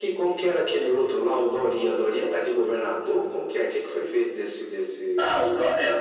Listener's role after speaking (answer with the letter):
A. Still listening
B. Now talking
B